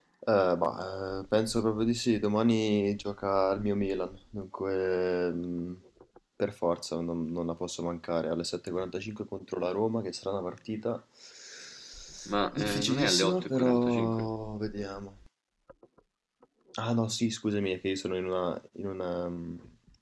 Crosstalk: present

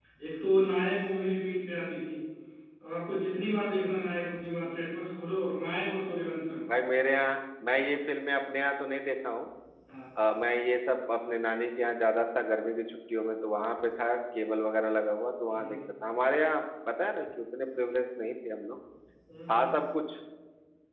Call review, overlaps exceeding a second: none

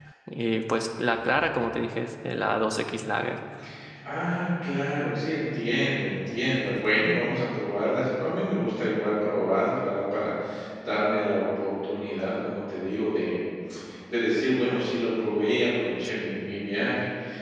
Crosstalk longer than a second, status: none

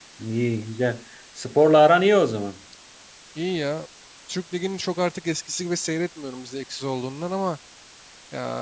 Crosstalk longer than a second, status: none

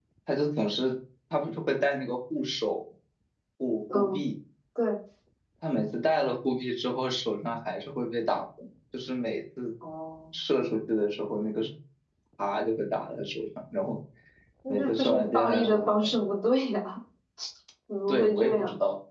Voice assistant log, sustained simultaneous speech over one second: present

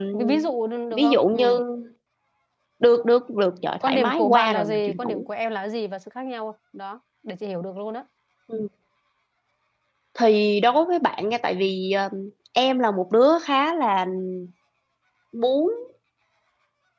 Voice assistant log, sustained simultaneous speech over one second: present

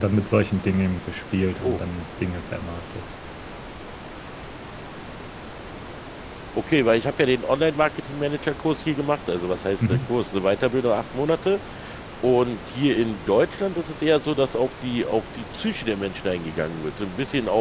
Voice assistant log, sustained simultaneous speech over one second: none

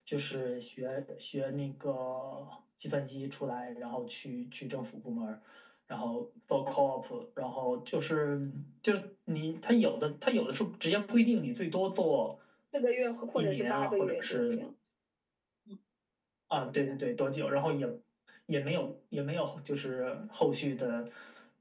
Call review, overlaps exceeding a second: present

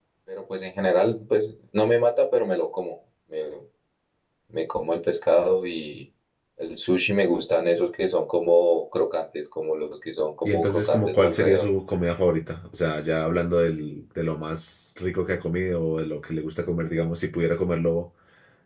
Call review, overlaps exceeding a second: present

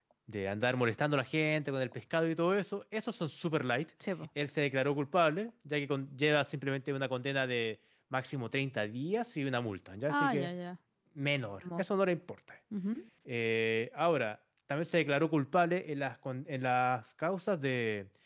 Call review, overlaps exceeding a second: none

